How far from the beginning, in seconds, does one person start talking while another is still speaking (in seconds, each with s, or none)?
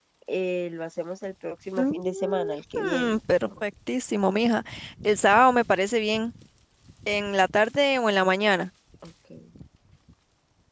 1.8 s